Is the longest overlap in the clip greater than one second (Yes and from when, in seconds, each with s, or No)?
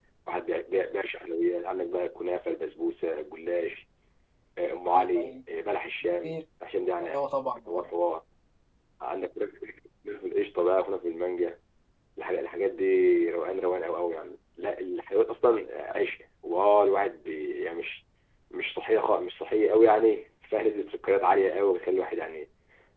No